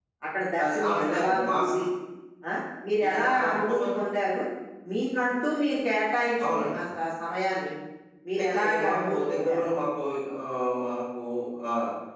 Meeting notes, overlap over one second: present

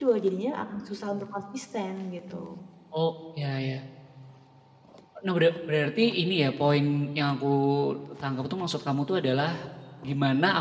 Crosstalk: none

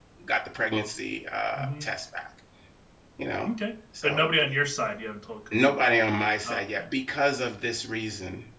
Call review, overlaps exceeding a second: none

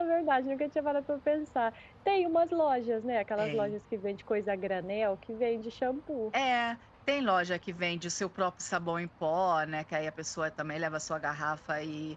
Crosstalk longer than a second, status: none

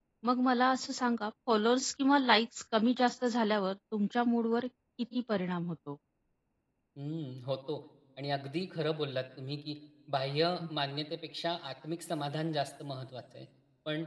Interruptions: none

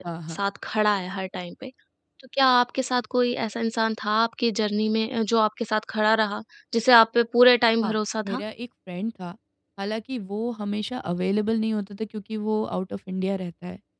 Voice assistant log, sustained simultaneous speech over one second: none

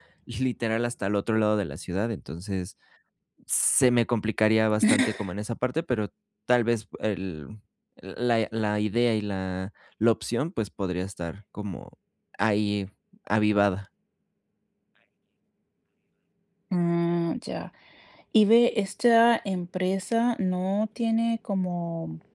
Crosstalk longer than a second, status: none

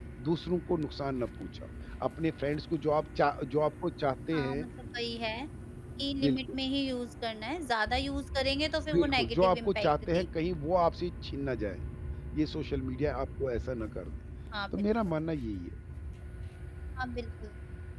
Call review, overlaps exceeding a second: present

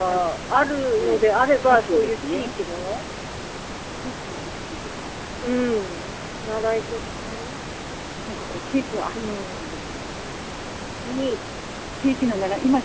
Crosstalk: present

